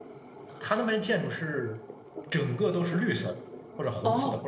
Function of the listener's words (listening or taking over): taking over